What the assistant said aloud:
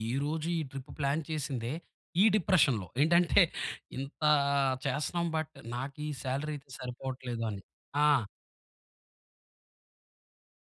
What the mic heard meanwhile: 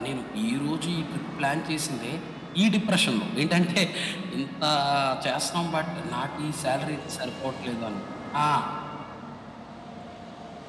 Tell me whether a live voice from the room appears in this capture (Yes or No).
No